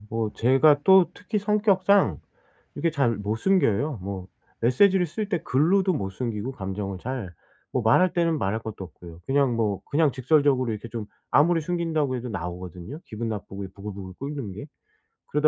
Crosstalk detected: No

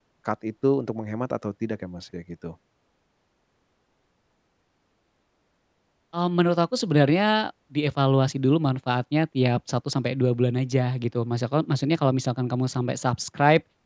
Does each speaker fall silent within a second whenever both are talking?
Yes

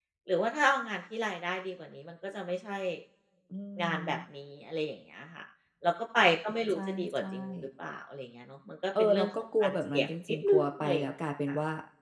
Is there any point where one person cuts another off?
Yes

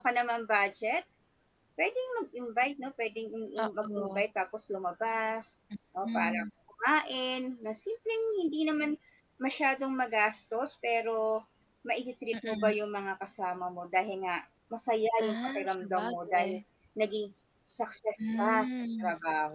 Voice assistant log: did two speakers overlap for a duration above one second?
Yes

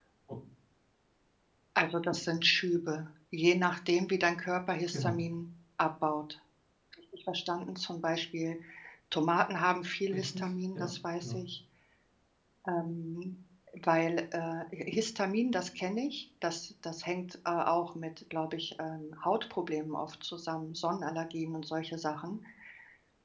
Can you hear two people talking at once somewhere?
Yes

